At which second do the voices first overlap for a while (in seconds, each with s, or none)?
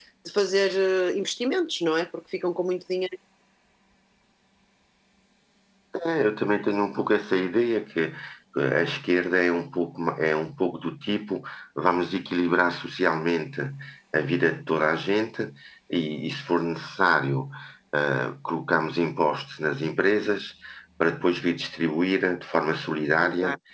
none